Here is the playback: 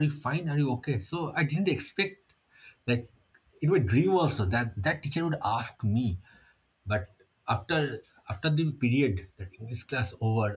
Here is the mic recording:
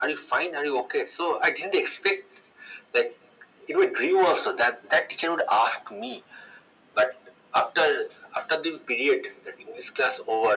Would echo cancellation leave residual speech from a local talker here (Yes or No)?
No